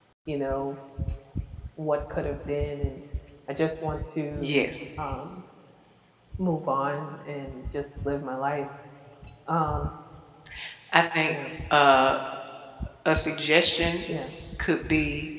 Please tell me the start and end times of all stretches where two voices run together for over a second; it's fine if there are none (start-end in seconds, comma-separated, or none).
none